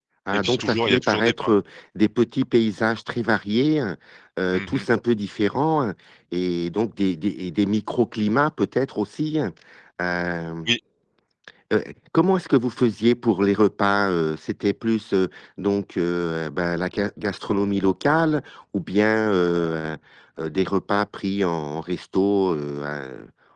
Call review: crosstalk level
present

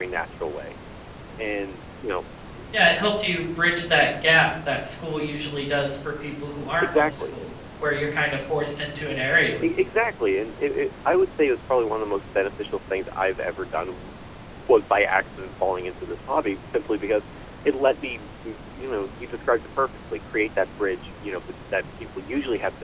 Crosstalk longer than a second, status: none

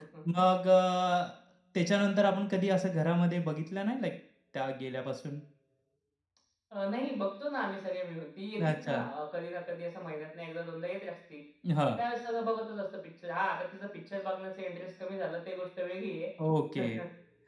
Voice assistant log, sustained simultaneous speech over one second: none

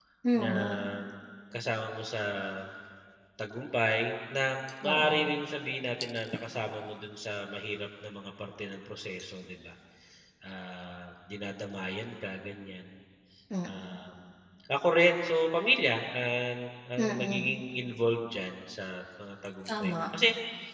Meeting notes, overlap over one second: none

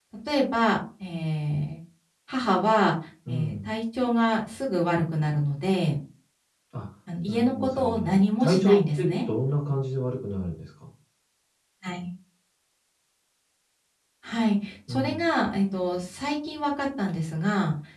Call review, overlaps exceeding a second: present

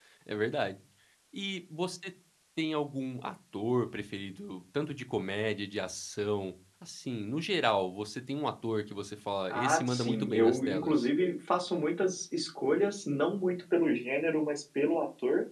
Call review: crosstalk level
present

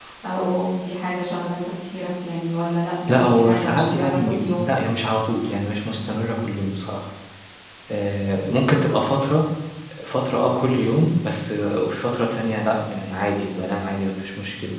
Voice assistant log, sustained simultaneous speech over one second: present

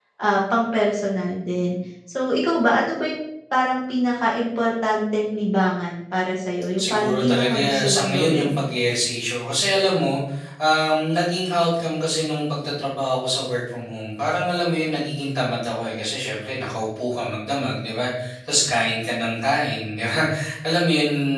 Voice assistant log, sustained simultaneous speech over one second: present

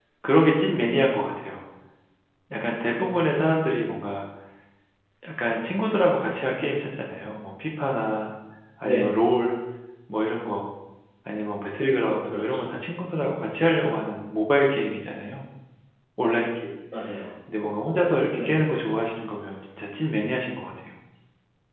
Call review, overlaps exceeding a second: none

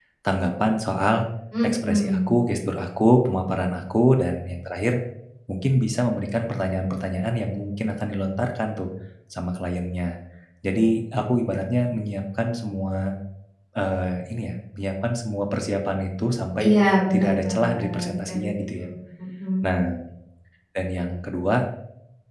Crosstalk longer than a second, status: present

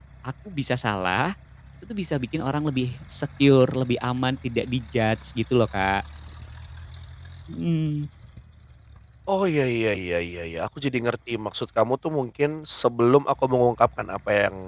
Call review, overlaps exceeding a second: none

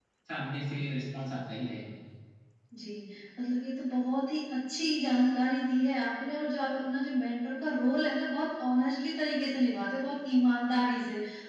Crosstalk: none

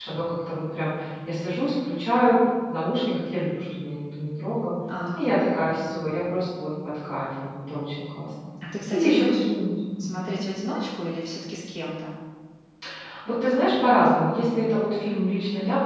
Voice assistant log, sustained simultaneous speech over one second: none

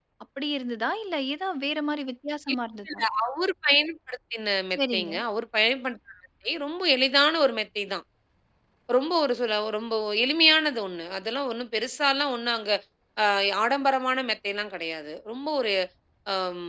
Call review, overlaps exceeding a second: none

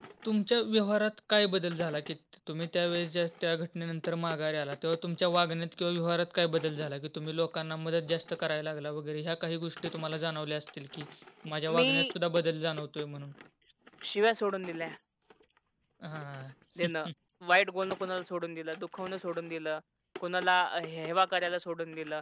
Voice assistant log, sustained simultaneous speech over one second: none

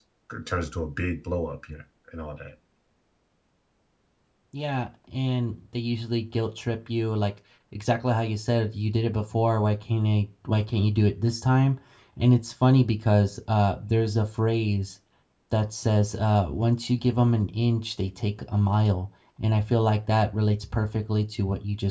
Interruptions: none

